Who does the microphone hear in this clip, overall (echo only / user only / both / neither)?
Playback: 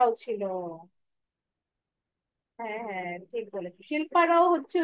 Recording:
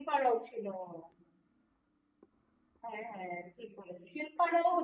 echo only